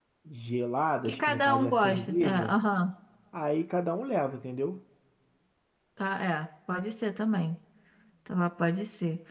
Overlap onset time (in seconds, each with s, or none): 1.0 s